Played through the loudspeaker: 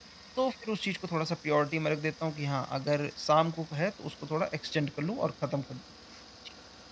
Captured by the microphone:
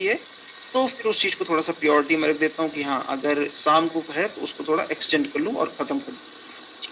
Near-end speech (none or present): none